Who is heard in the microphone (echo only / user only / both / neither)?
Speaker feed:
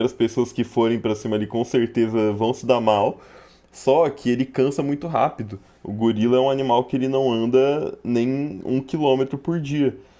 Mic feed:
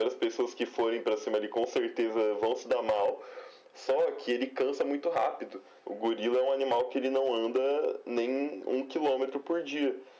echo only